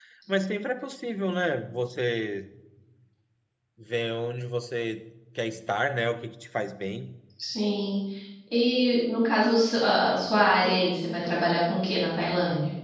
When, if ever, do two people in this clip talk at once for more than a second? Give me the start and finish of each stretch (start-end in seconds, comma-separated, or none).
none